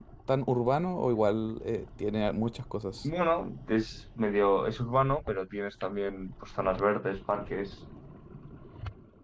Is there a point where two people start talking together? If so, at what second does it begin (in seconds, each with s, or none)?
none